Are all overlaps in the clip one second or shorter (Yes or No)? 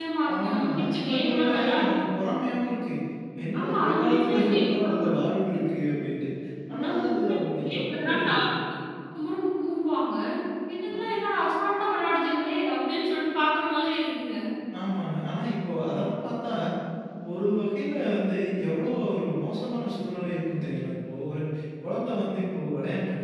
No